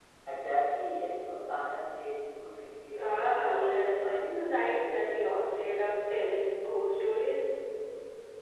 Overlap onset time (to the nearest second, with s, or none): 3 s